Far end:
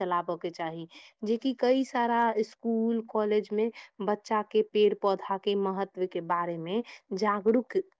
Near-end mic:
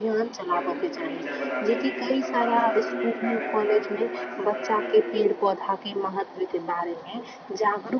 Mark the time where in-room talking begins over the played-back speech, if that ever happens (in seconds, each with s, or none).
0.5 s